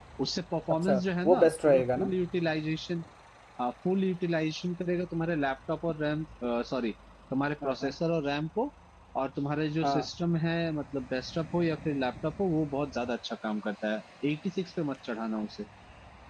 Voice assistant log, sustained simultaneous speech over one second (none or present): present